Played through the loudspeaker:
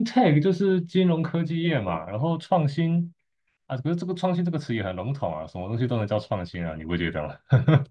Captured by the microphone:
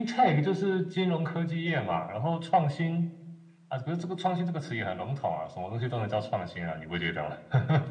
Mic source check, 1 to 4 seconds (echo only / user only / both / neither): echo only